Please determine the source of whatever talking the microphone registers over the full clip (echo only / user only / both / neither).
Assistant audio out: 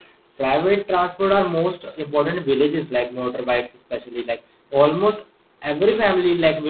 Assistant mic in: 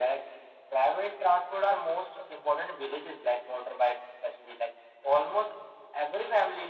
echo only